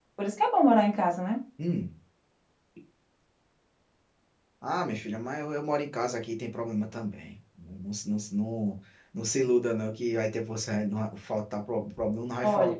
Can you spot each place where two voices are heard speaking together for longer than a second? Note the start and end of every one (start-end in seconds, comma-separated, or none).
none